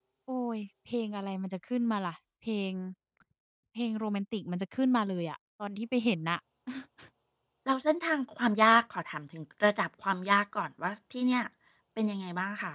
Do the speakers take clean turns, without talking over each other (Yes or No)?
Yes